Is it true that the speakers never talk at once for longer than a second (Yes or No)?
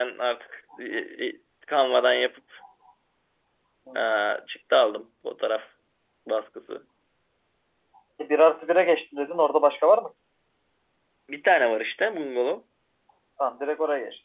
Yes